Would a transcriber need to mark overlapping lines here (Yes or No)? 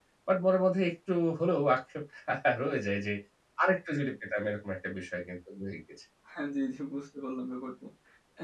No